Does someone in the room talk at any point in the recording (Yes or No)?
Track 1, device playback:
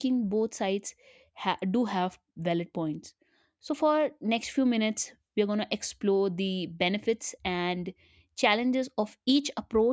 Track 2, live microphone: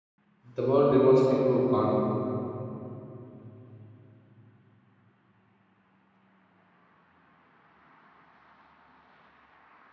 Yes